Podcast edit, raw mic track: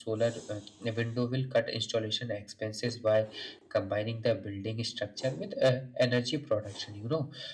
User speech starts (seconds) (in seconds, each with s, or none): none